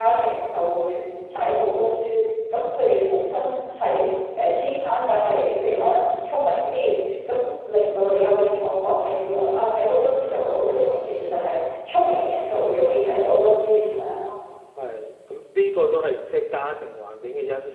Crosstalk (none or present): none